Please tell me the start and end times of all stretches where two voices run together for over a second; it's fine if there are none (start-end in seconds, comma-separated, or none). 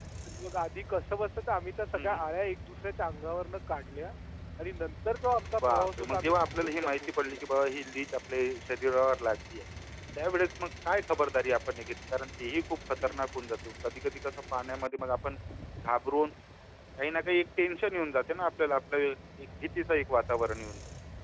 5.6-7.4